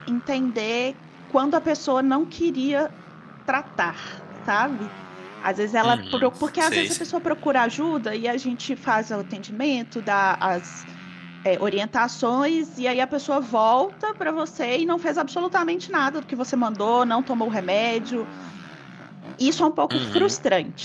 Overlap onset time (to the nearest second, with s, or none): 6 s